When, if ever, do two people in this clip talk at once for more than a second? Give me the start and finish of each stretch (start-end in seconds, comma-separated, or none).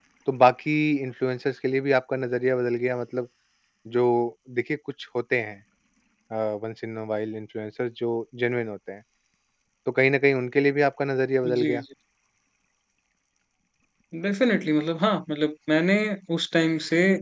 none